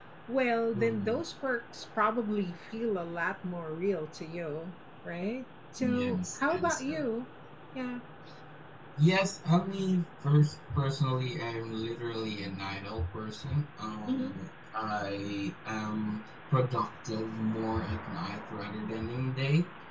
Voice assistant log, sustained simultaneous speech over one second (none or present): present